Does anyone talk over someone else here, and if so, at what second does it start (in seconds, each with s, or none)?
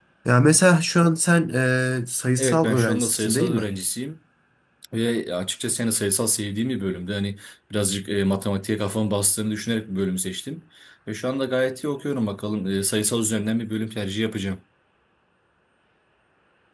2.4 s